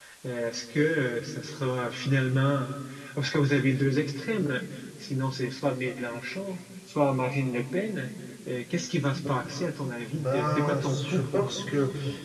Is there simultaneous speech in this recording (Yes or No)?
Yes